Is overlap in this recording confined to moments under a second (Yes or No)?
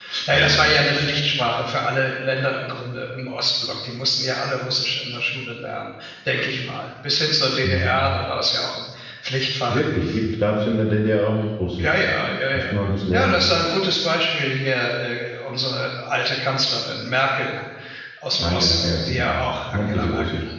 No